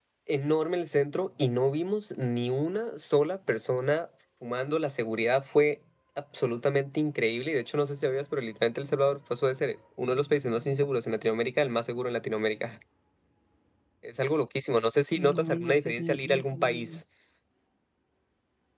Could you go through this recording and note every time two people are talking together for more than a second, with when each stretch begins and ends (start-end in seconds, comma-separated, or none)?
15.2-17.0